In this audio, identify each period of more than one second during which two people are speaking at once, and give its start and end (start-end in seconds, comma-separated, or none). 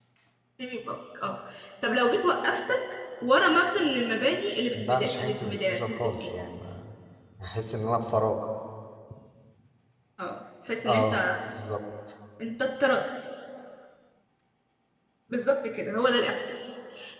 4.7-6.3